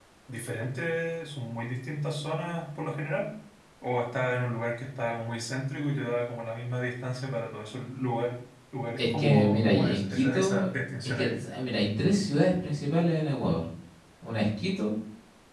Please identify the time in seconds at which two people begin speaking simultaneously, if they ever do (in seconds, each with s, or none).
9.0 s